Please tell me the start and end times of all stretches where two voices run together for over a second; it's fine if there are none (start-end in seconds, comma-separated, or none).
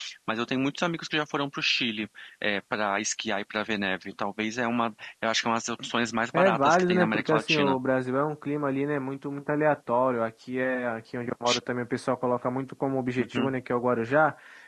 6.3-7.8